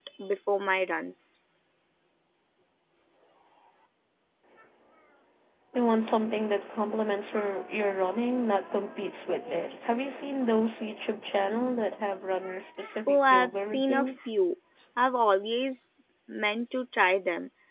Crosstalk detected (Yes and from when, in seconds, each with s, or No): Yes, from 13.1 s